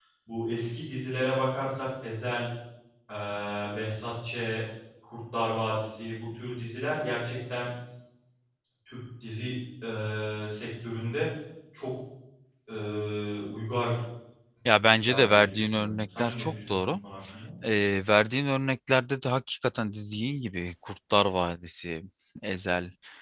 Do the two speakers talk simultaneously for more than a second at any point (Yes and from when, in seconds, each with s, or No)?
Yes, from 14.8 s